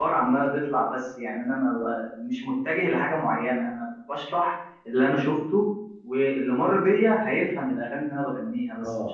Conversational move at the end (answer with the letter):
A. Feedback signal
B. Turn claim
B